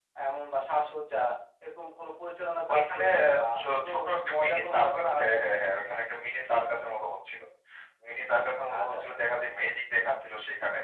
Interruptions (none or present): present